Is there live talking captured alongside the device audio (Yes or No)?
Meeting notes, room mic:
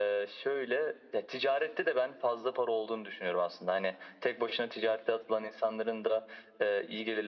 No